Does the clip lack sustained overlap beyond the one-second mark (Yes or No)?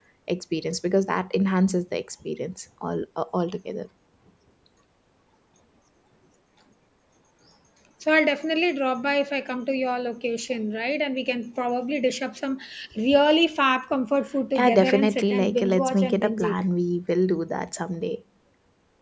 No